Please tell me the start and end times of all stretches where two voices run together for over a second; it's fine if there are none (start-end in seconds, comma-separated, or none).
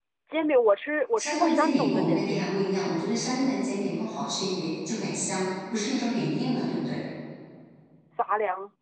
1.2-2.4